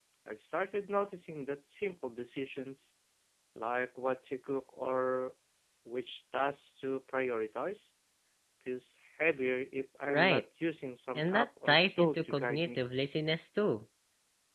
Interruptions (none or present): present